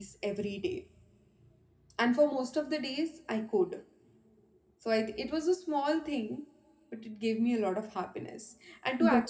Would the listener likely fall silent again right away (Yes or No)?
Yes